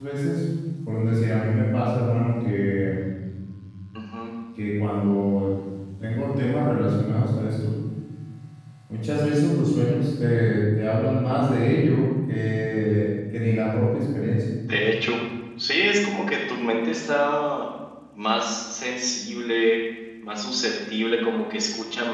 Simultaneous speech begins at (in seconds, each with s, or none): none